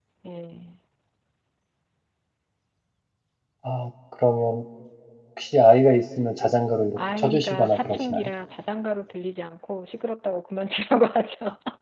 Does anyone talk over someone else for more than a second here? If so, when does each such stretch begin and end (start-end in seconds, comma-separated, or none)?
7.0-8.3